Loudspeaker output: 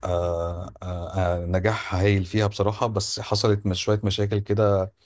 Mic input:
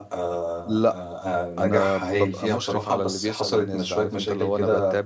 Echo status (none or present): present